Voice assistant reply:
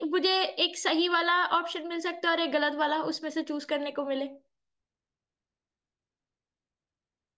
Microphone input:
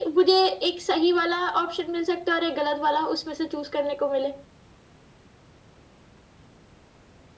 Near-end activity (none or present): none